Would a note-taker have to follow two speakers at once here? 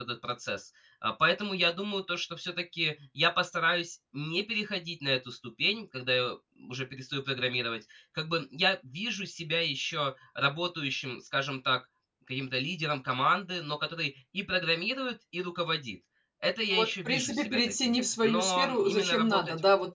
Yes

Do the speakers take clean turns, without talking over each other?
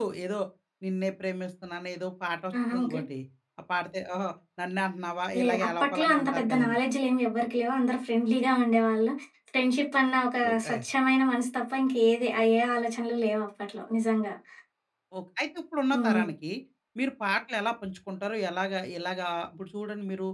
No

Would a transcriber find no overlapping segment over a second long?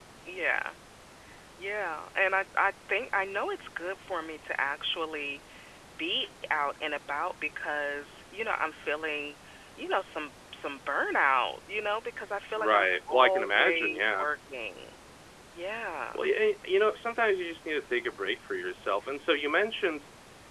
No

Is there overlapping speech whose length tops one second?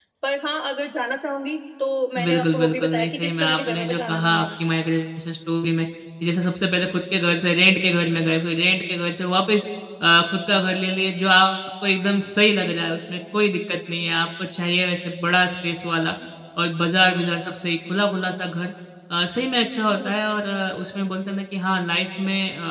Yes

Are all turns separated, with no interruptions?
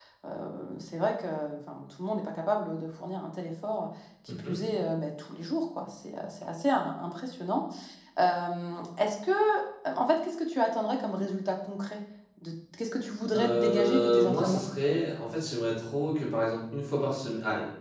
No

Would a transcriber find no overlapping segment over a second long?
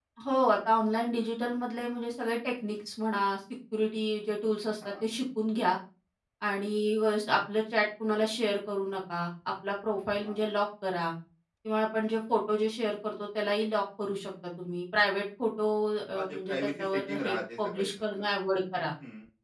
No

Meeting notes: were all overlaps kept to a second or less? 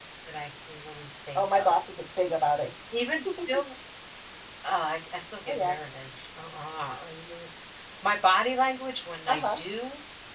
Yes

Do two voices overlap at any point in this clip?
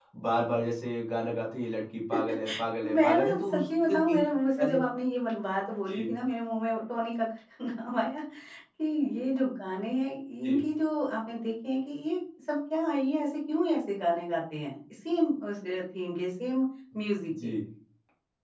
Yes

